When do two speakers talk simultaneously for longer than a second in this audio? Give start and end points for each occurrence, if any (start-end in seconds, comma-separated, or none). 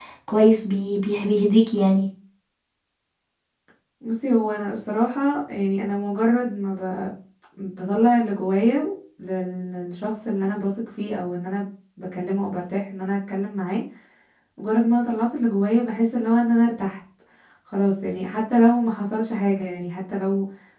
none